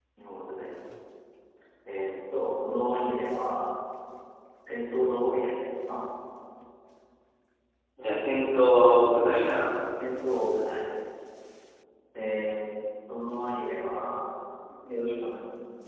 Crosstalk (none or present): none